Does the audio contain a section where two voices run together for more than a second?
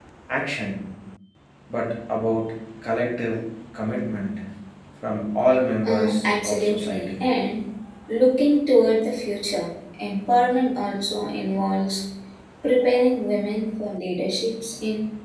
Yes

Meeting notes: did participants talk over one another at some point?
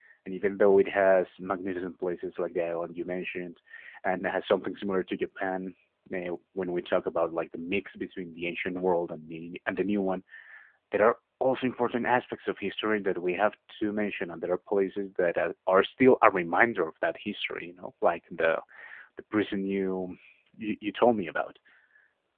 No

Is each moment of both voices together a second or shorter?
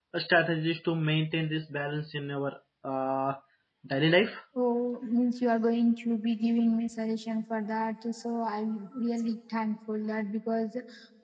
Yes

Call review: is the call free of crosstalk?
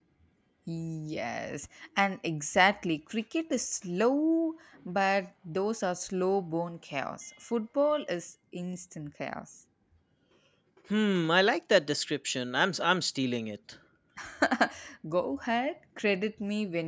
Yes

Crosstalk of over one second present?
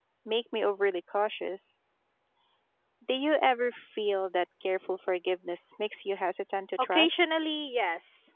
No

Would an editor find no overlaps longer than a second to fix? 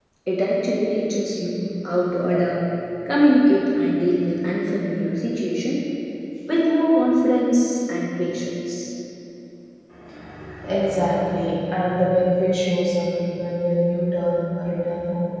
Yes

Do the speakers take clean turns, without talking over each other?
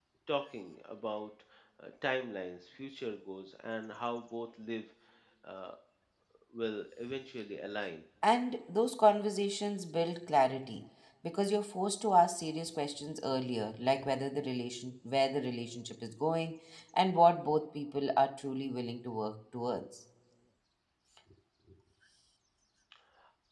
Yes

